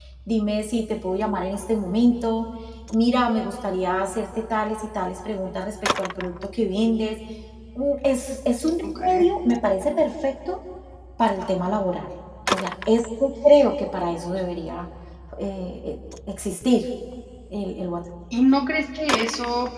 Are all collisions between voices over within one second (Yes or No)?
Yes